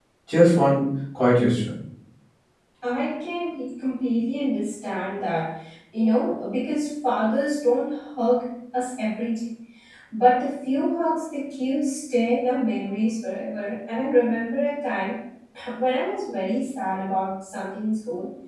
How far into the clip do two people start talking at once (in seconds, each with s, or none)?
none